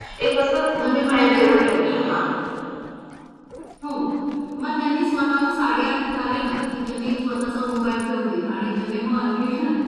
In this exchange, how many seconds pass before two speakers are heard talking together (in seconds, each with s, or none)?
0.8 s